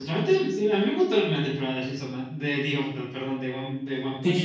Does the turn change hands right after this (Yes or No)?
Yes